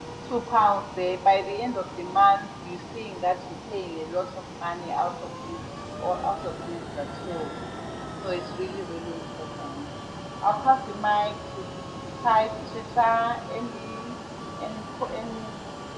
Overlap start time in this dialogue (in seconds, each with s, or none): none